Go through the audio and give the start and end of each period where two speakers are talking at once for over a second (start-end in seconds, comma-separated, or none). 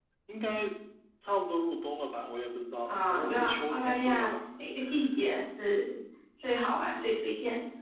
2.8-4.3